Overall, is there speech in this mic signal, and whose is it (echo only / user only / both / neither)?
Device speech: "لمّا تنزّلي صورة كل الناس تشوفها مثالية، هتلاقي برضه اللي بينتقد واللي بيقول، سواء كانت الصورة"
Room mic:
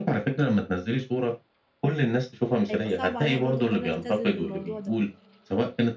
both